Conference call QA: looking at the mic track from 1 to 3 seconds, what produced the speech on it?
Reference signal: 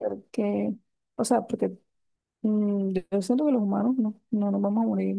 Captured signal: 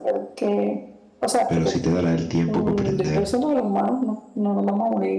both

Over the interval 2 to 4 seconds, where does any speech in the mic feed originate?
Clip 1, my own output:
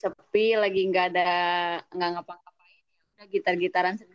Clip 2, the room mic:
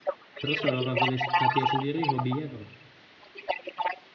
both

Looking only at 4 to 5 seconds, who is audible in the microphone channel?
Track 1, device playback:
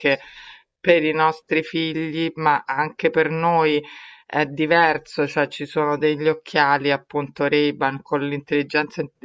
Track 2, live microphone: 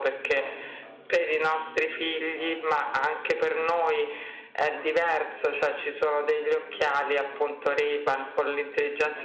both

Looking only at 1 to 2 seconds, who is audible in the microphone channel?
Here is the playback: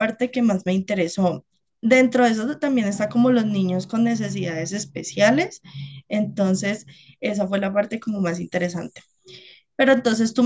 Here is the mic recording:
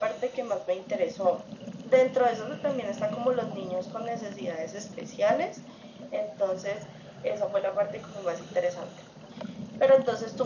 echo only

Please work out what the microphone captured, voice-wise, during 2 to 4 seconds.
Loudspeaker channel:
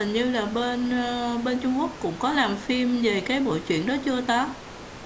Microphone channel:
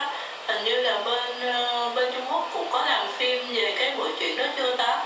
echo only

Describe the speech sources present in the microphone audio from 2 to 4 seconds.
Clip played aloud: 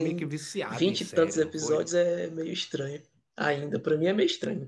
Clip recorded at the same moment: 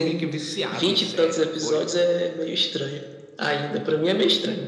echo only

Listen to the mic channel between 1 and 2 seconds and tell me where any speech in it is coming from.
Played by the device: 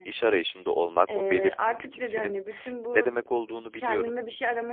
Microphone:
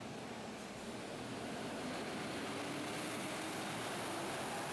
neither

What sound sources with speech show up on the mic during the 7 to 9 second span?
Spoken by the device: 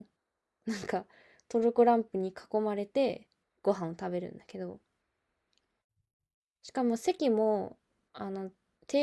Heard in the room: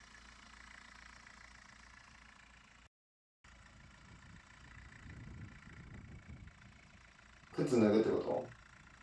user only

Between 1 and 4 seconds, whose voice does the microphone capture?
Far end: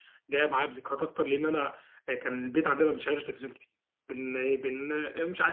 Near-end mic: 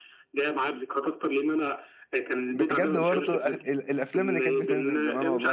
both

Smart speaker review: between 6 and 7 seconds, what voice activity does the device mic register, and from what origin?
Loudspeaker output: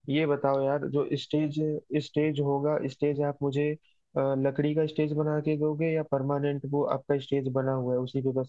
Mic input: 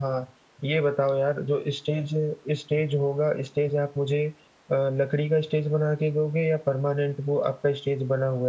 echo only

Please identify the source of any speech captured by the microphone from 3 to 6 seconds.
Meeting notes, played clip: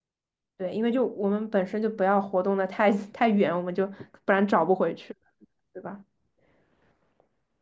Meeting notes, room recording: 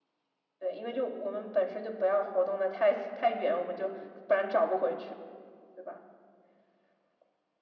echo only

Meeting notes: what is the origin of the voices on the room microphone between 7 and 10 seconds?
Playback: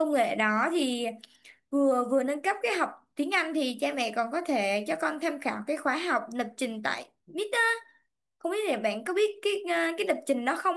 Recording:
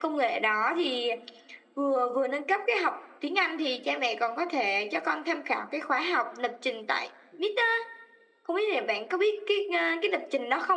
echo only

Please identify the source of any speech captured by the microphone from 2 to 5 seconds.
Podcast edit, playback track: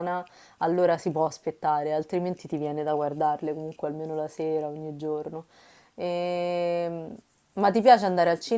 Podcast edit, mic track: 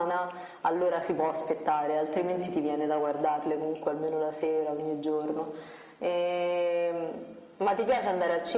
echo only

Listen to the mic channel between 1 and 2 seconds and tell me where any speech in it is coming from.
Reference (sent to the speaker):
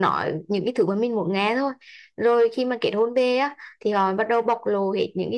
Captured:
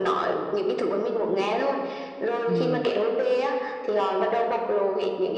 echo only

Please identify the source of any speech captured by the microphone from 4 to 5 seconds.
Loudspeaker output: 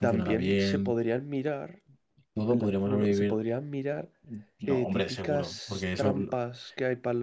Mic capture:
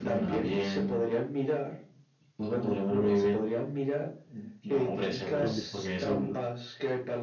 echo only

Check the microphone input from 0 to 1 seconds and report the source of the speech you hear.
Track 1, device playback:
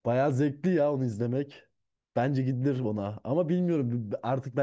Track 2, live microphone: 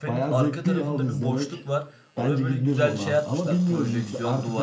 both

